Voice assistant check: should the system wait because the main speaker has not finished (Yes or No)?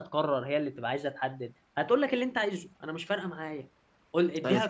Yes